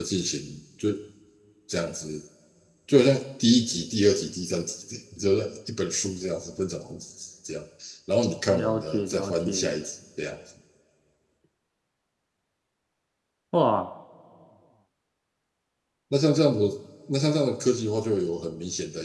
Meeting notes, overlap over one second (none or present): present